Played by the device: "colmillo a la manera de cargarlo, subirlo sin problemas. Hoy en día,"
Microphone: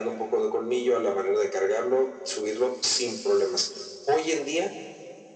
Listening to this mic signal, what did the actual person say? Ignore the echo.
none

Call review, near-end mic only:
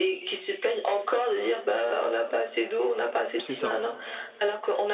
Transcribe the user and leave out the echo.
c'est ça.

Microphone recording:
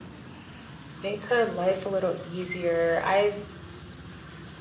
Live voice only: none

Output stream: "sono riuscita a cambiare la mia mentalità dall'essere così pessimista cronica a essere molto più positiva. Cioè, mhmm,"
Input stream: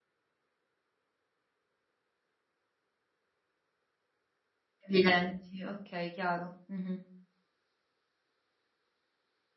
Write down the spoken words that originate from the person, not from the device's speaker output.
evidenti, okay, chiaro. Mh-mh.

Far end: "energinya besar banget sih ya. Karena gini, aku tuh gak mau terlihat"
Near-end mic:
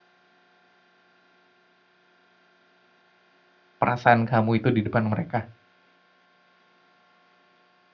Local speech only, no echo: perasaan kamu itu di depan mereka?

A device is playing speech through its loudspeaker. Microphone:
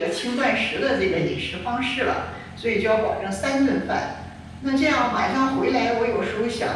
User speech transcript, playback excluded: 嗯，

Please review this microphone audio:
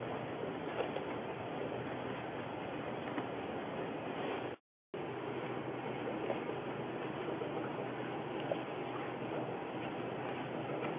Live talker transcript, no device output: none

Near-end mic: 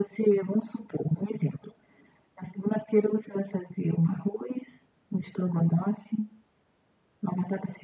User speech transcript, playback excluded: none

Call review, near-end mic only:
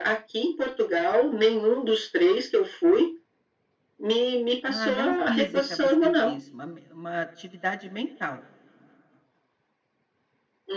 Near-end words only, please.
Ah, não física você diz, uma me uma atividade mental.

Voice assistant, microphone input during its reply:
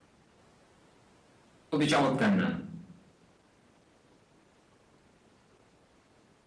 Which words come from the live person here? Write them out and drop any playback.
খুবই চমৎকার নাম।

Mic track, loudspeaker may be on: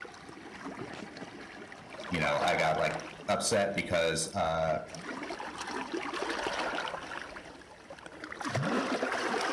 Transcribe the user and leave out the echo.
you know, I got like upset because, uh,

